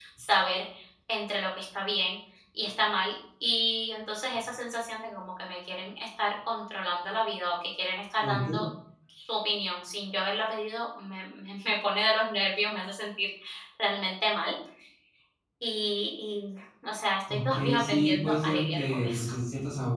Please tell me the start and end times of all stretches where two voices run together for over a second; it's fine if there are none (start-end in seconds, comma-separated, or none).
17.3-19.3